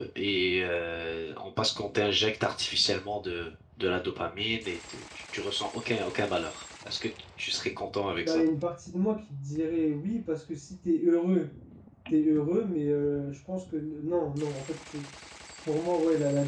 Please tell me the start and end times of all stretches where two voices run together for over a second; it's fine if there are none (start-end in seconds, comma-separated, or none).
none